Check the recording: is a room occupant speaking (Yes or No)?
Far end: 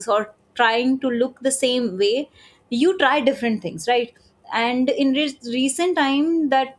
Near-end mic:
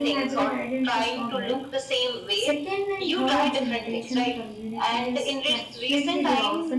Yes